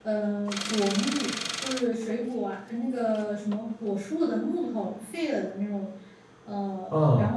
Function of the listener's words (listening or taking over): listening